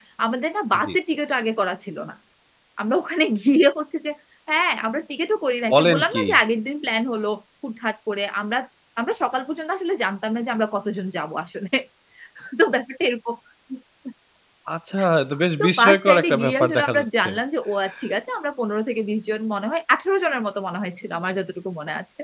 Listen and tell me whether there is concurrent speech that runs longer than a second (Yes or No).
Yes